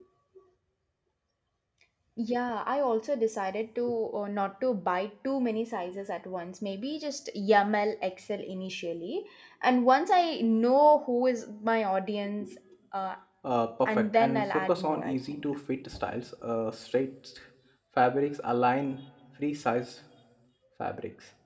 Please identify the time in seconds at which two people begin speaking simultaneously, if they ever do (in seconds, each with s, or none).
13.9 s